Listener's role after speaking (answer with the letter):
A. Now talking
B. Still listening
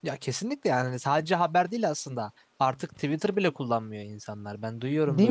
B